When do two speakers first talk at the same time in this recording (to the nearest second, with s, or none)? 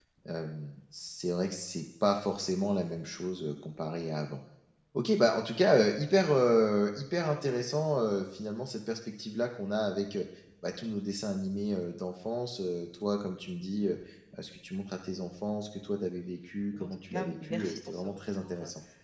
17 s